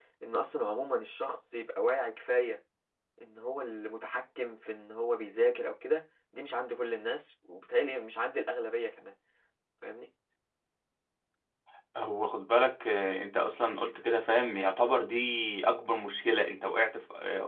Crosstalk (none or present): none